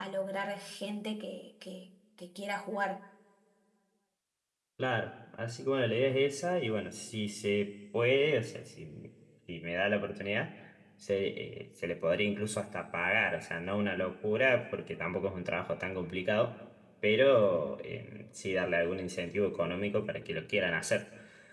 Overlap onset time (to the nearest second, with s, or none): none